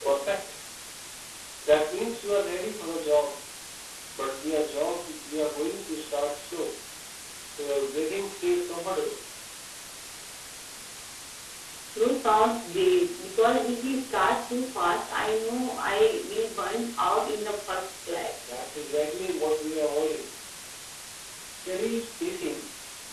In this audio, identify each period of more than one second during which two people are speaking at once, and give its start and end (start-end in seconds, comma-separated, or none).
none